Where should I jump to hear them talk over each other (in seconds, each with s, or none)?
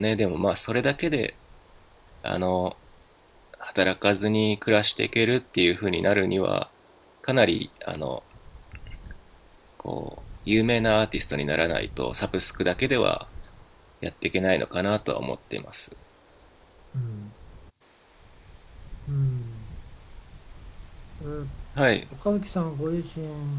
none